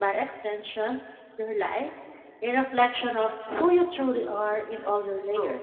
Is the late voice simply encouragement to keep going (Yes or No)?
No